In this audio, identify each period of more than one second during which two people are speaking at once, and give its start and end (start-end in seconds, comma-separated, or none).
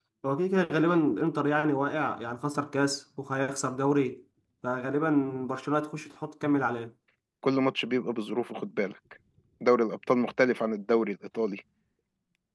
none